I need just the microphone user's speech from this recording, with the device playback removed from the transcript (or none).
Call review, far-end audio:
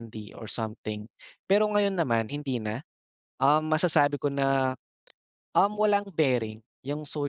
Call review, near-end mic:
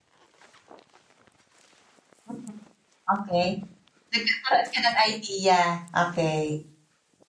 Mhm. Okay. Nagkakaroon ka ng idea, okay.